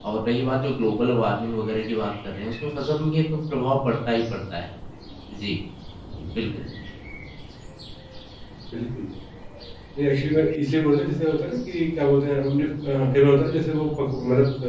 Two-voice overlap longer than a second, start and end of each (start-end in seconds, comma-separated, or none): none